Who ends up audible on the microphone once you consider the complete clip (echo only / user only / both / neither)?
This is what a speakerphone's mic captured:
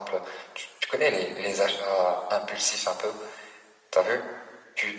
echo only